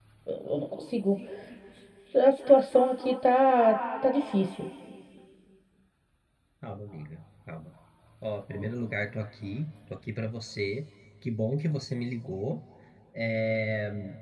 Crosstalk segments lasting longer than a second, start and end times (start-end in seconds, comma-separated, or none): none